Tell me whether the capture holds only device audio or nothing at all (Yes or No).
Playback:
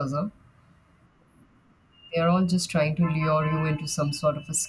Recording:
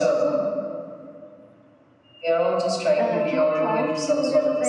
No